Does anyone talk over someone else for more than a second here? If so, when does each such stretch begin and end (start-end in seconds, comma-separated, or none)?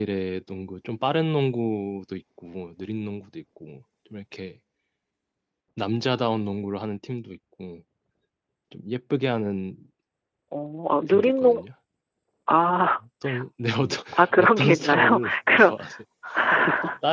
14.1-15.7